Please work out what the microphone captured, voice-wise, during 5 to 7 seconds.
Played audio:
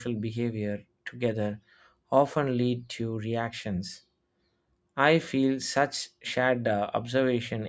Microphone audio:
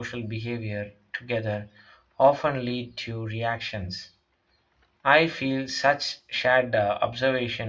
echo only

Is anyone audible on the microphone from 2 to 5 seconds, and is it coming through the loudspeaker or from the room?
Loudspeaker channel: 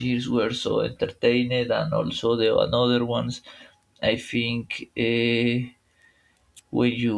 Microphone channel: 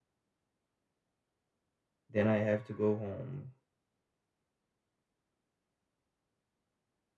user only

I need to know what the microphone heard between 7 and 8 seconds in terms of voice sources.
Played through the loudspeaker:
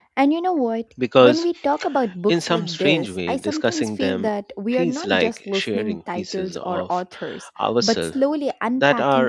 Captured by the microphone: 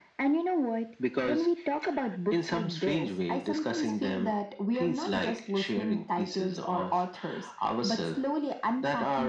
echo only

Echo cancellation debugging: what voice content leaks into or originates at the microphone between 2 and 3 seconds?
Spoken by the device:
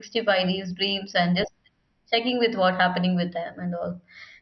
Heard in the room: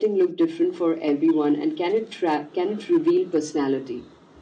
user only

